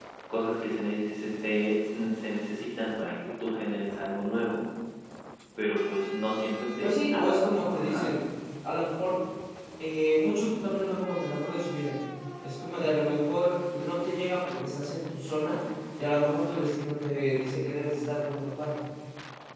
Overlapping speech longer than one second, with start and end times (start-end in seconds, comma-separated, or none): 6.8-8.1